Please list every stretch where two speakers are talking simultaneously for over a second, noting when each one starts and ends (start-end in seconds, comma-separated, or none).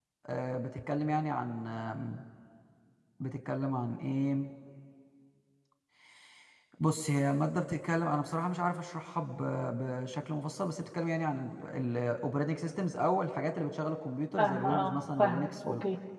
14.4-15.7